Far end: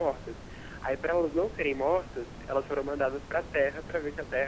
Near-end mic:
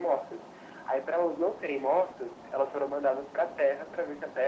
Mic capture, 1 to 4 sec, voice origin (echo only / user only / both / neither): echo only